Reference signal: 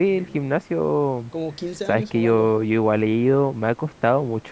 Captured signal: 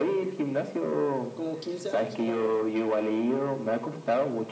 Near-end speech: none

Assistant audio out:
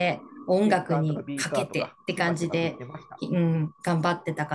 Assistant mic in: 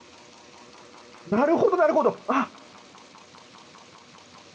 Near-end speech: present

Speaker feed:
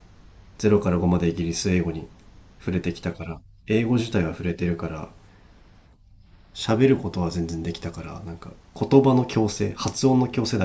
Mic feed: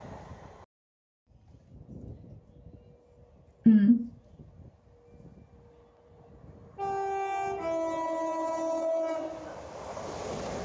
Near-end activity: present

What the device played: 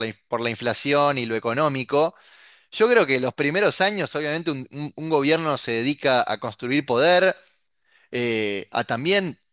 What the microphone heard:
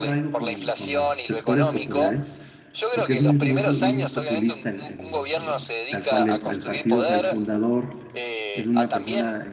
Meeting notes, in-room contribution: present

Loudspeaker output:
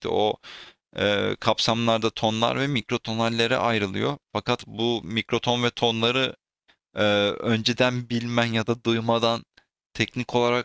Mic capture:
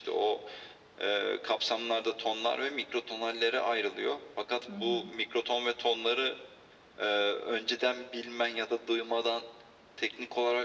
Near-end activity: present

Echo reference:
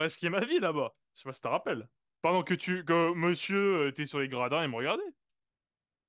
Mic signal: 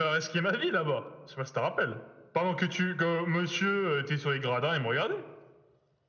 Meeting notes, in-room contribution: none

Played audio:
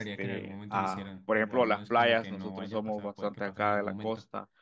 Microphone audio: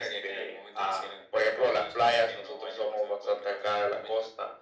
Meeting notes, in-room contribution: none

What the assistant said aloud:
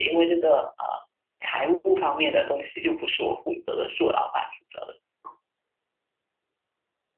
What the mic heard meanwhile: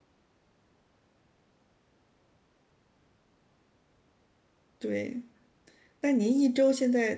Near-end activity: present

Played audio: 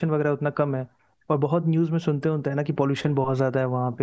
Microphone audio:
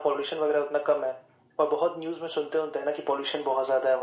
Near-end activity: none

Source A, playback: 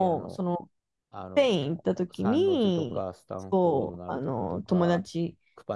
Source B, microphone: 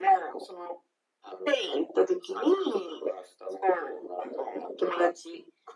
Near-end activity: none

